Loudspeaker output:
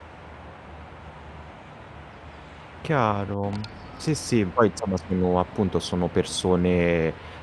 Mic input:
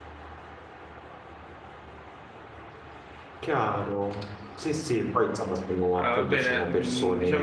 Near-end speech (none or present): present